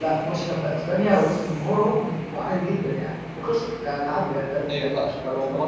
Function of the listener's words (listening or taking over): taking over